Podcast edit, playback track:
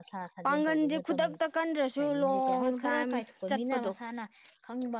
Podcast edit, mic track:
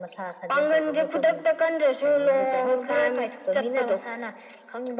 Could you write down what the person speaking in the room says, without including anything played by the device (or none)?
none